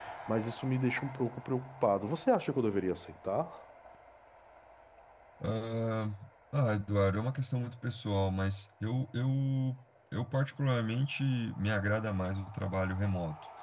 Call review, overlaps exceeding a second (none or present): none